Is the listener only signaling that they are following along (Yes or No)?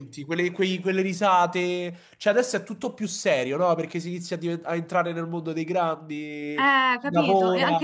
No